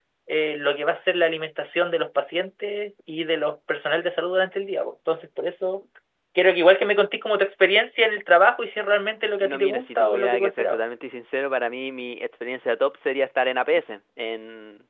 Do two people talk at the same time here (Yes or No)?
Yes